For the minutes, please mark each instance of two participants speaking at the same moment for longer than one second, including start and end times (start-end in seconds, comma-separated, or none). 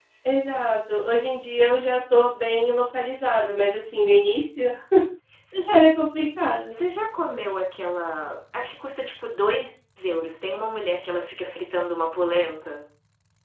none